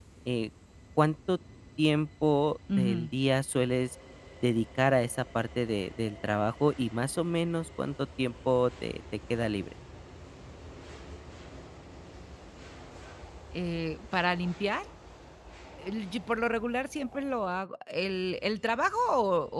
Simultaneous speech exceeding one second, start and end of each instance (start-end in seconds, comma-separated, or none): none